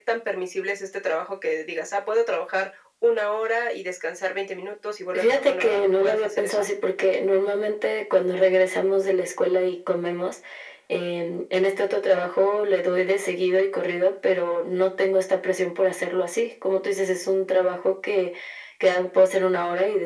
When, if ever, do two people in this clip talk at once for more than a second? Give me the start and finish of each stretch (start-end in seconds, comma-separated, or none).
5.1-6.7